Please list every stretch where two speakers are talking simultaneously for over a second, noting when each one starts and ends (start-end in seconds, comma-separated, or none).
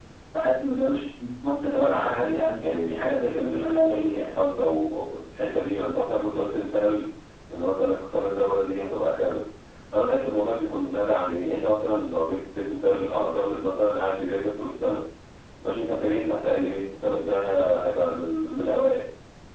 1.7-4.2